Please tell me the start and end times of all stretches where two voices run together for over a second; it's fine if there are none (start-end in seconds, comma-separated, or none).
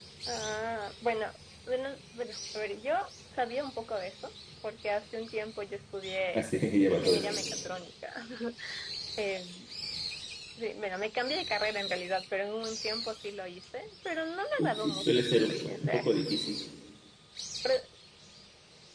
14.8-16.1